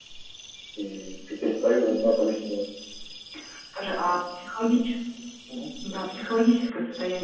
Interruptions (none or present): none